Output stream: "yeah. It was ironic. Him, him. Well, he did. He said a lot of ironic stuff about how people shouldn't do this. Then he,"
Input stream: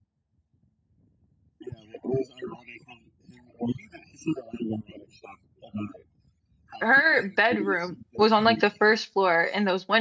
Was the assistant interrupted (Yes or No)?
Yes